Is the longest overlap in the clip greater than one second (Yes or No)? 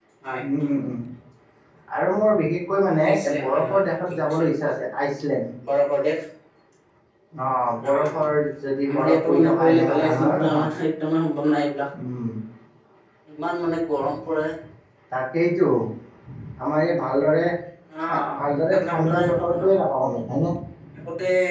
Yes